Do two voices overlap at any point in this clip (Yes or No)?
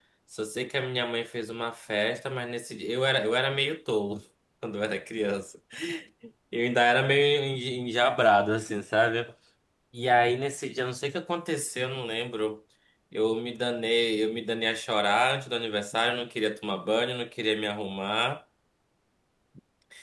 No